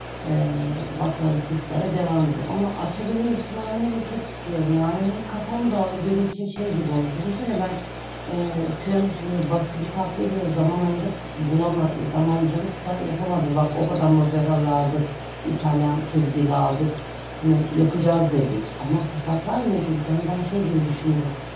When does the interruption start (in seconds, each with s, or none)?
none